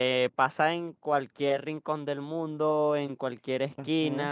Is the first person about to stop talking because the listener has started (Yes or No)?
No